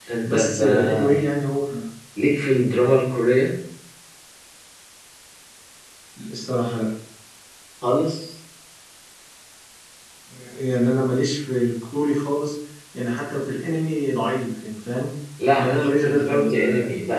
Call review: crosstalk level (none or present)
present